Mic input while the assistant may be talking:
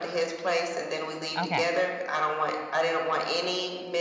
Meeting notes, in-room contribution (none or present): present